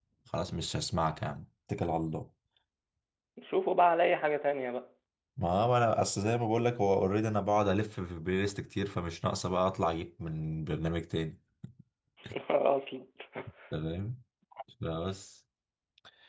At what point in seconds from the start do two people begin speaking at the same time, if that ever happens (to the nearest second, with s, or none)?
none